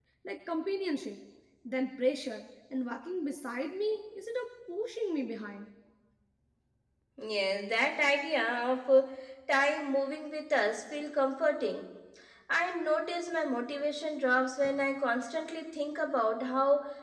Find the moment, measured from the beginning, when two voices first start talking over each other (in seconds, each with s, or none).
none